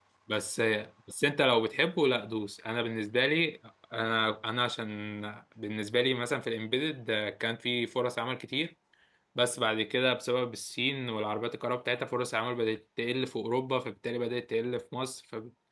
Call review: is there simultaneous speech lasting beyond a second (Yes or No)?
No